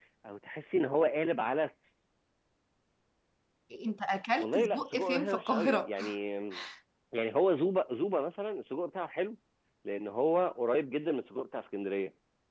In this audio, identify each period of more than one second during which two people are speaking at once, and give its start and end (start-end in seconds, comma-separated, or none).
4.4-5.9